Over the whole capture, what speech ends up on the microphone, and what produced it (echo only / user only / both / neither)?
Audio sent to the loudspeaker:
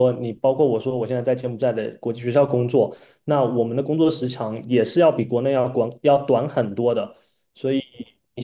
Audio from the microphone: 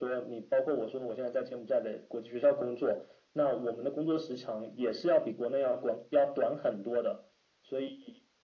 echo only